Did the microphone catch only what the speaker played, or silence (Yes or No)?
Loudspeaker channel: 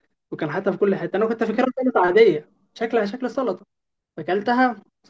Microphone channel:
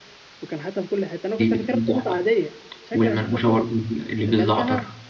No